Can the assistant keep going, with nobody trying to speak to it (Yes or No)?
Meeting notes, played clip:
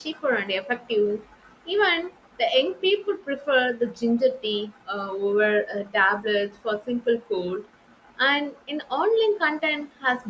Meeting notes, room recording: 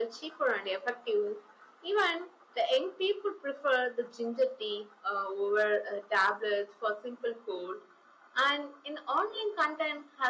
Yes